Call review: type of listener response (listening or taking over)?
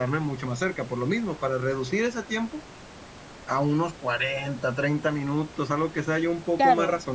taking over